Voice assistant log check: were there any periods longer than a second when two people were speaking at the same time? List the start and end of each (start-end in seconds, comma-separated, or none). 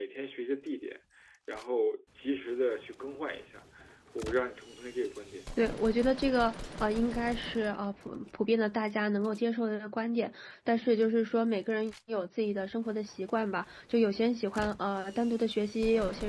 none